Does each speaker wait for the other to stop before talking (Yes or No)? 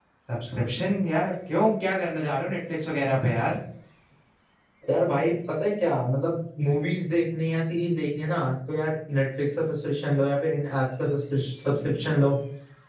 Yes